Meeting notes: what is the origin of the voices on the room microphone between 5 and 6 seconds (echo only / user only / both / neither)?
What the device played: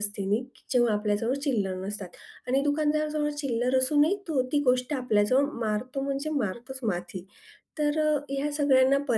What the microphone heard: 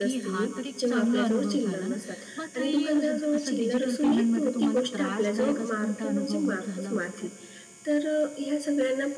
both